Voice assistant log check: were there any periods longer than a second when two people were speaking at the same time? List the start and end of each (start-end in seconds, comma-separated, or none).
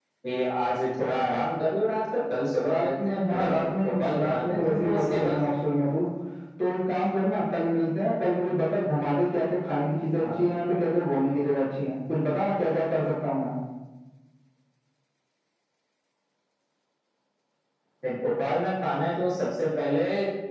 2.7-5.4